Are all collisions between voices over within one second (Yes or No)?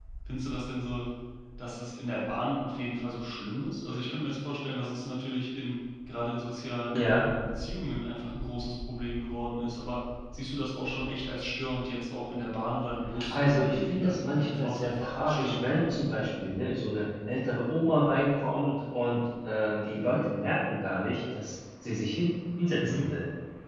No